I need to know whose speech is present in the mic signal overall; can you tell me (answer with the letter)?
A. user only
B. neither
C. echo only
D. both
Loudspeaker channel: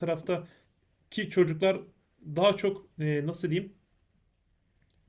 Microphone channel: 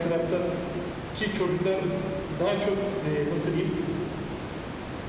C